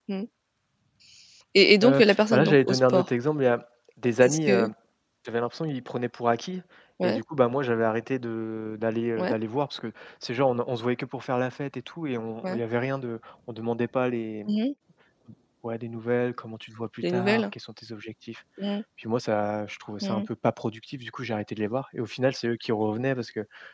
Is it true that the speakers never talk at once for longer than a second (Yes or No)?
No